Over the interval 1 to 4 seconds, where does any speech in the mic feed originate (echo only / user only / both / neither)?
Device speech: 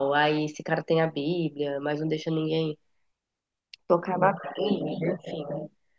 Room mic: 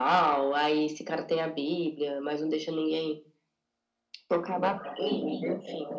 echo only